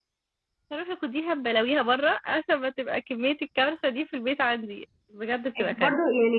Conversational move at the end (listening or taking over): taking over